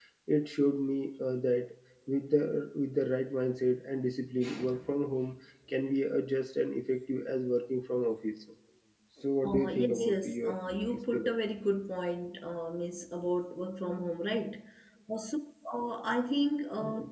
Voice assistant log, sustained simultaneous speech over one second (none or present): present